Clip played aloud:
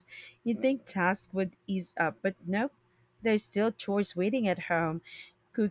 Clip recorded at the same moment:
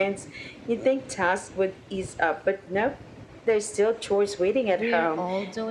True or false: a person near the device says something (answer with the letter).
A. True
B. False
A